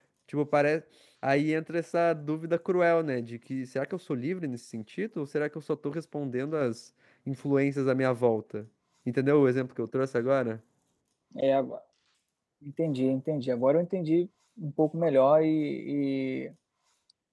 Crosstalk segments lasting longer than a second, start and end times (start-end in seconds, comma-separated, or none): none